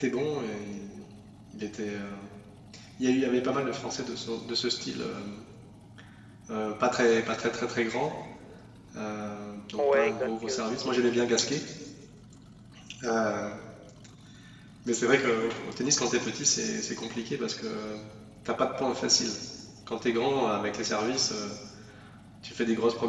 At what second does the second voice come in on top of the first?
10 s

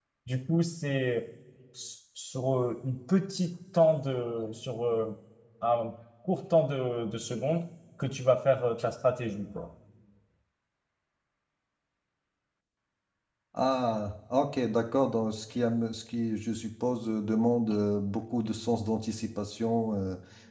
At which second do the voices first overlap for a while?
none

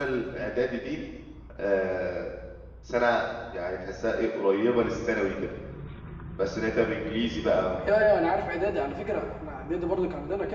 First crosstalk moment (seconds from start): none

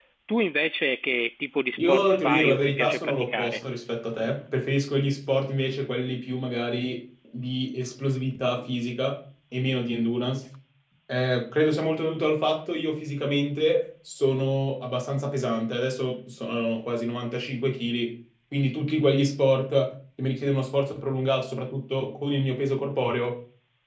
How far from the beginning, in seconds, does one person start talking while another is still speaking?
2 s

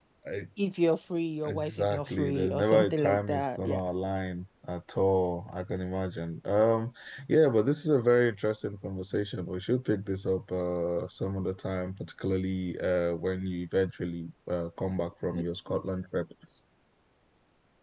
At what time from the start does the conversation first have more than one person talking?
1 s

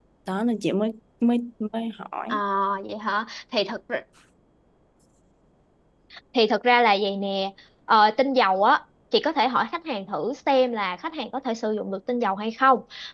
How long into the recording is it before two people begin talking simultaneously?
none

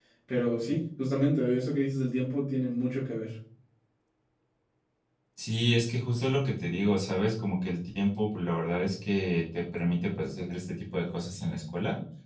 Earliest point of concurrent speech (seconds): none

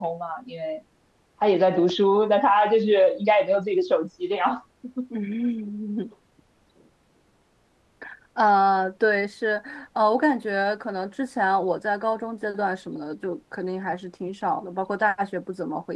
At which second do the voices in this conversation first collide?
none

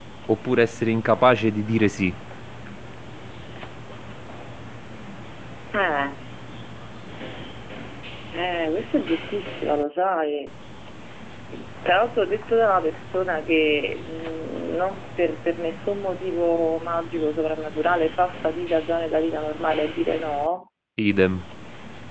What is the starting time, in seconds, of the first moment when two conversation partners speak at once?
none

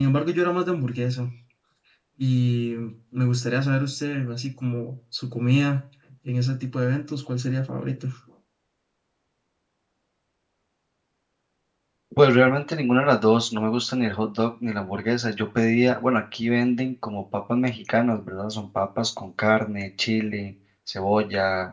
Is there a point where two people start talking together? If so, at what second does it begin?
none

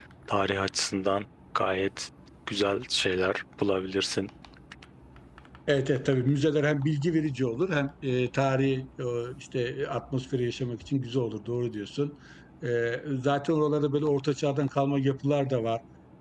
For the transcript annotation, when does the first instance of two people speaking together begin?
none

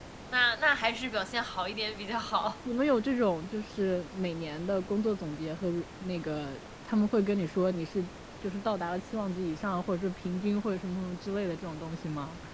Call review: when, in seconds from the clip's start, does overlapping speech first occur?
none

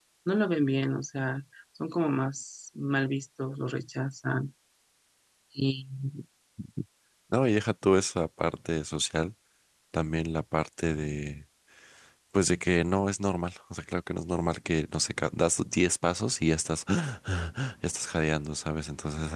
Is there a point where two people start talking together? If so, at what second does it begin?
none

